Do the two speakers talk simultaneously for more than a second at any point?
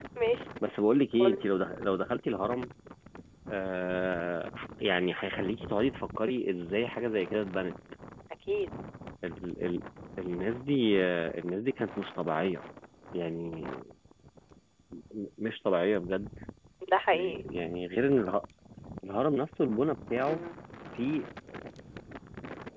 No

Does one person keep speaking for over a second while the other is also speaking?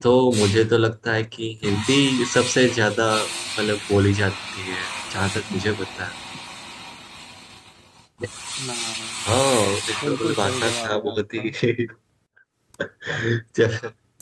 Yes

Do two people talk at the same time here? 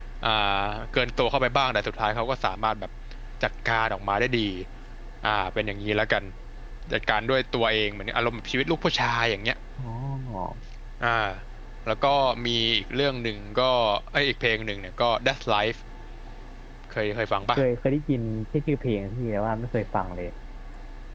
No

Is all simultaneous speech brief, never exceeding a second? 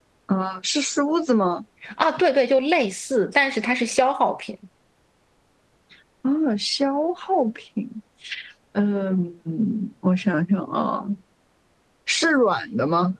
Yes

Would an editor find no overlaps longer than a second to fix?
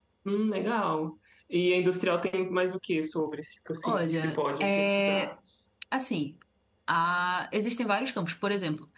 No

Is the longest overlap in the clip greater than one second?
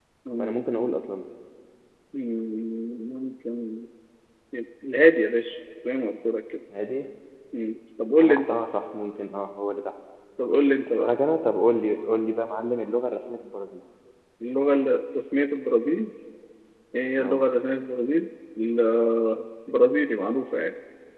No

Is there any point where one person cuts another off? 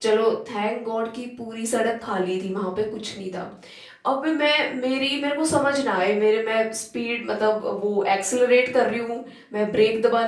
No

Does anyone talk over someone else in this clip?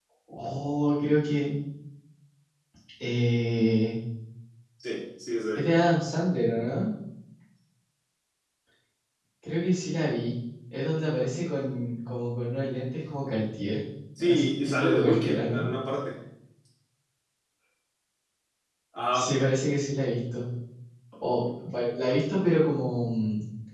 Yes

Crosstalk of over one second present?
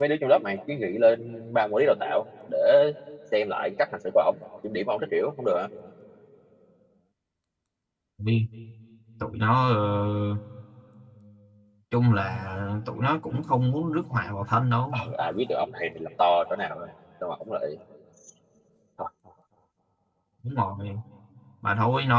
No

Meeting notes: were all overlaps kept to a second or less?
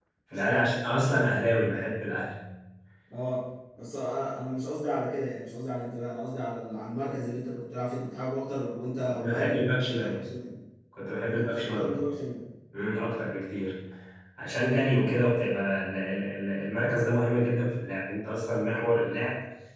No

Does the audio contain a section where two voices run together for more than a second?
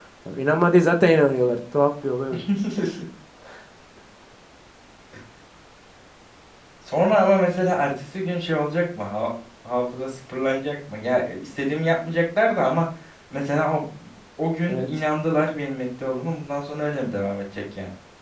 No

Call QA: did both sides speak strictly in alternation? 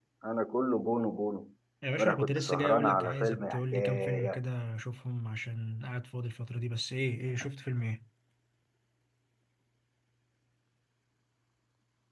No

